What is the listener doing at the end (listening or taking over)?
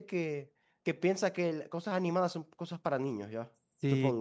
taking over